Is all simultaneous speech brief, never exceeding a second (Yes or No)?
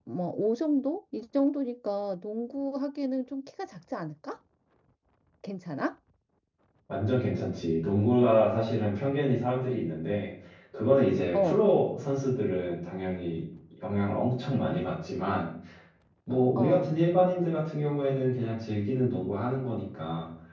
Yes